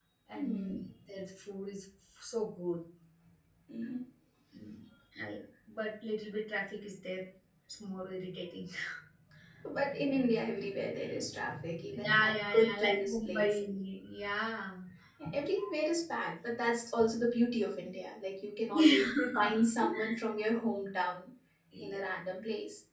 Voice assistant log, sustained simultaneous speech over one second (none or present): present